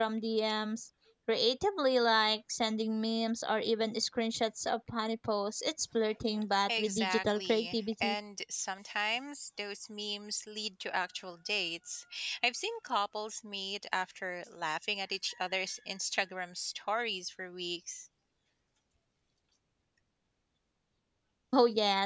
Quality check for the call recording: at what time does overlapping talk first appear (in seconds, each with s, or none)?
6.7 s